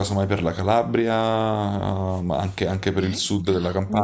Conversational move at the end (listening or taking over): taking over